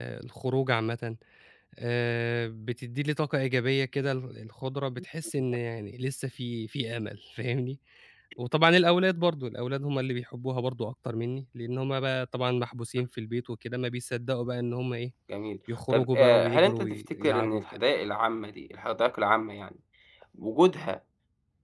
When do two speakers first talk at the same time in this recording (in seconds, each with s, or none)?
15.9 s